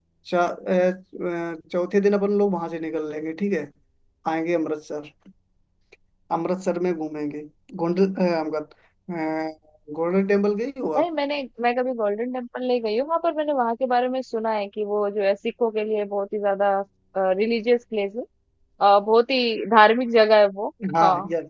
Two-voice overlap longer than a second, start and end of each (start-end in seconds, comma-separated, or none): none